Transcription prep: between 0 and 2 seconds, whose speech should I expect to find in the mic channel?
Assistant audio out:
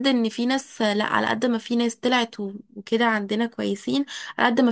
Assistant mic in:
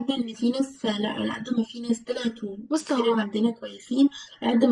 echo only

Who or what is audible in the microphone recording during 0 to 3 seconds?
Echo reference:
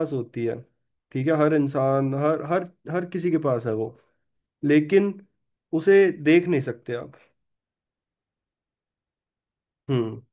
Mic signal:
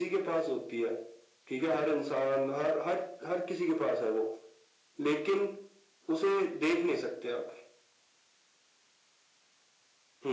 echo only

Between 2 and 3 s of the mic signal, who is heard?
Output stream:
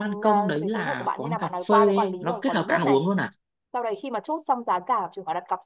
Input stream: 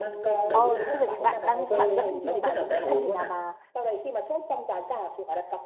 both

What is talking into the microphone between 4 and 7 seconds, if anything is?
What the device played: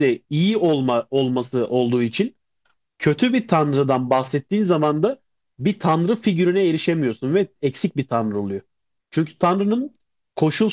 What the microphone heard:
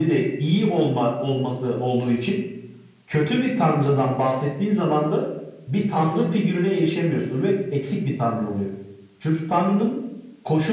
echo only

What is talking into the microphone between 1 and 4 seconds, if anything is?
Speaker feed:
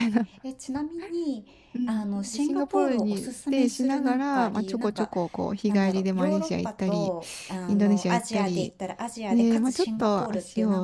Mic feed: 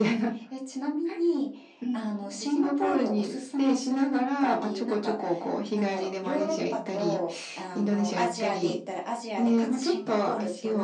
echo only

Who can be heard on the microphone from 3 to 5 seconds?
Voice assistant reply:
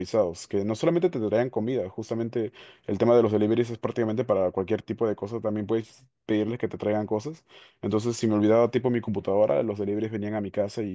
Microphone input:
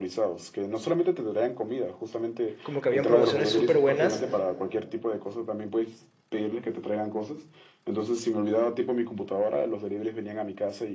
both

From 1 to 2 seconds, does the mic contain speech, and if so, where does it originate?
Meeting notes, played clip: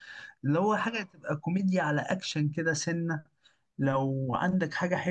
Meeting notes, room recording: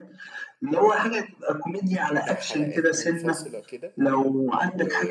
echo only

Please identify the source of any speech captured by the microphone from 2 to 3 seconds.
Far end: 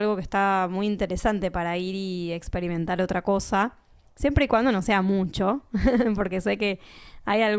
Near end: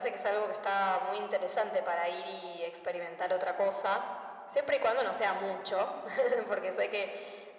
echo only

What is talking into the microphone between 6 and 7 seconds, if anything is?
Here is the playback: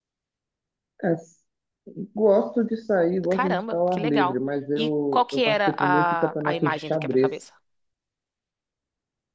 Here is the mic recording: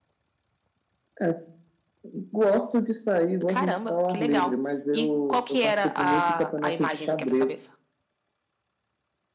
echo only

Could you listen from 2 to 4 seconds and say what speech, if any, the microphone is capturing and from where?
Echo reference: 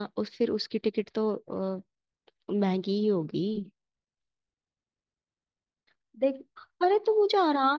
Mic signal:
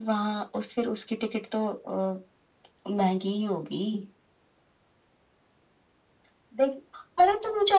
echo only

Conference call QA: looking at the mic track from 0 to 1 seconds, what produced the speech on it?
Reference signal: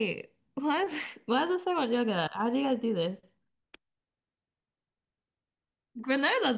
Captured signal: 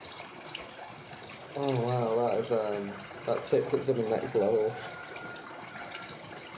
neither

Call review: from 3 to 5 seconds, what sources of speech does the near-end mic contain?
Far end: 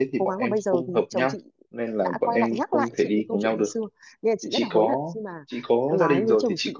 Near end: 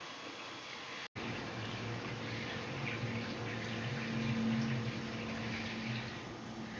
neither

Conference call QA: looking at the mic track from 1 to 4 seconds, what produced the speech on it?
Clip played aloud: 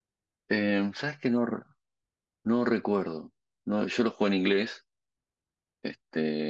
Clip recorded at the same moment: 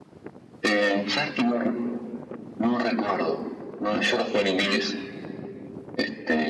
echo only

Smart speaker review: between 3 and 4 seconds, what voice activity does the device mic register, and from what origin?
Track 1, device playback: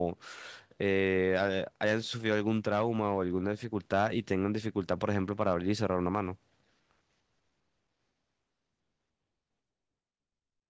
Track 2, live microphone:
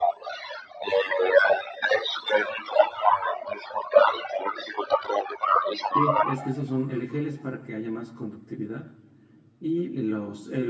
echo only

